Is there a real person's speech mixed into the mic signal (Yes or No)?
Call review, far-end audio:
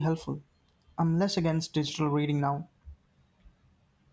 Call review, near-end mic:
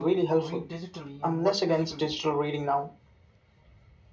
Yes